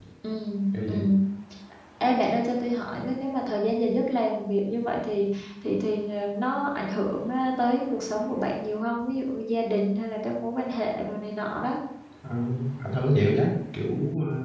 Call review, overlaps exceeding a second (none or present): none